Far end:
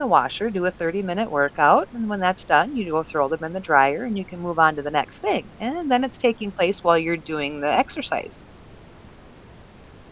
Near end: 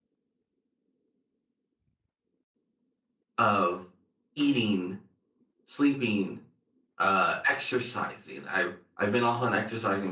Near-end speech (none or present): present